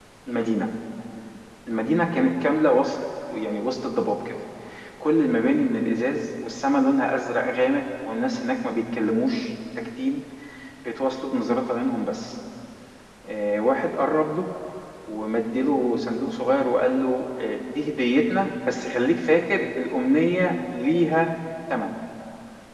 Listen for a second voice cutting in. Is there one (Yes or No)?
No